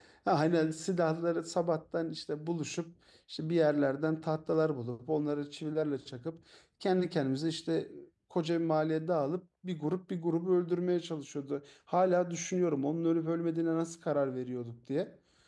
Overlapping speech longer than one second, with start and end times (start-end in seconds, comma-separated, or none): none